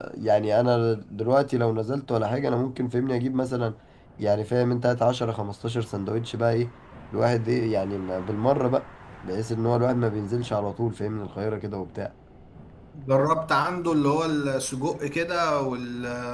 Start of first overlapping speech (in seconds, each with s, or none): none